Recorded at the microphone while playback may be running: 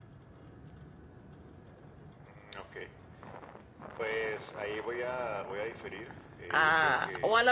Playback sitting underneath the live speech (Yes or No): Yes